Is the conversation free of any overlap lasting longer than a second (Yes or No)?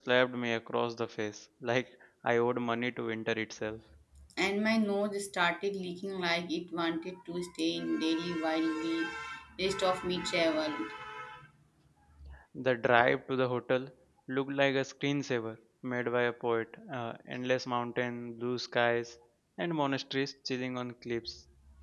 Yes